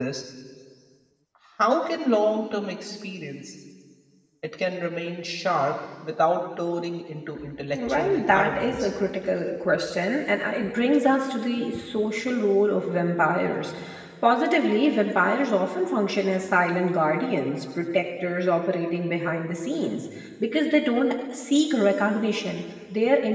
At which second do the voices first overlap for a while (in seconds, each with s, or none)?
7.7 s